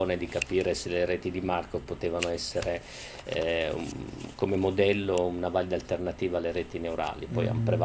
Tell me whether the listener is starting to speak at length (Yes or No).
Yes